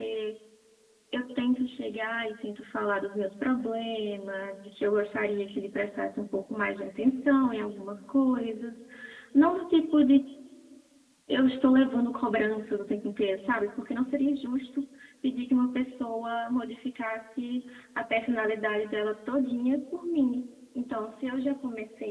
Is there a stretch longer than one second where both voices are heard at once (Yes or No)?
No